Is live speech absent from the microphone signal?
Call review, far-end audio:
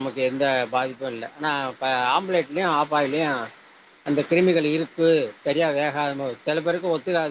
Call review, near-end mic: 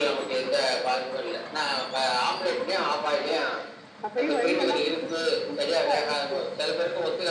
No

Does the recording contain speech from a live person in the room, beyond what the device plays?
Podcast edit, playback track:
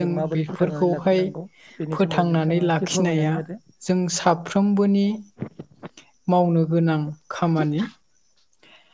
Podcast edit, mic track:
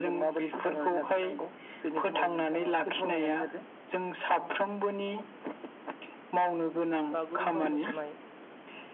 Yes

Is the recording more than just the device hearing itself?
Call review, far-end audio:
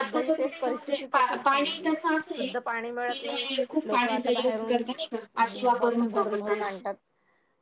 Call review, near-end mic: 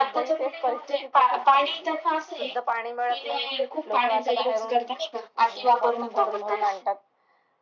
No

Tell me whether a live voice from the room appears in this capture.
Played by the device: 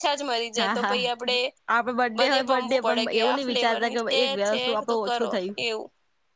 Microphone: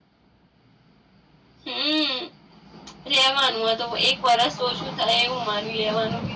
Yes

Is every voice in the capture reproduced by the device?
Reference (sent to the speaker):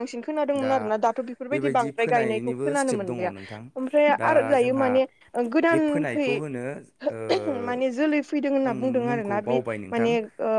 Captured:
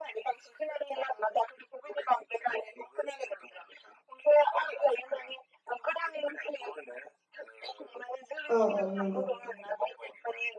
No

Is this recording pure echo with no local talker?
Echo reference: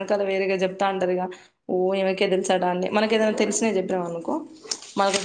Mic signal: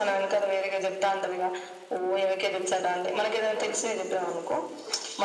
Yes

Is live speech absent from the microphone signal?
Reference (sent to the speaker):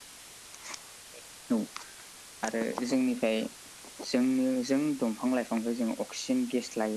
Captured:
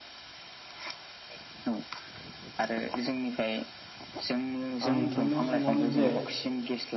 No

